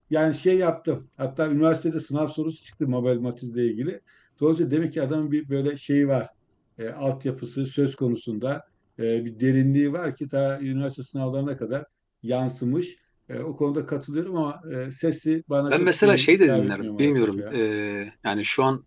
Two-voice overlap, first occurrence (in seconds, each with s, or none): 15.7 s